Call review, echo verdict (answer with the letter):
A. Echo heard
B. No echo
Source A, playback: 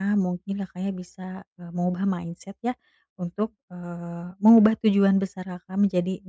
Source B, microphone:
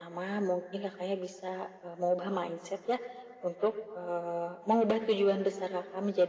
A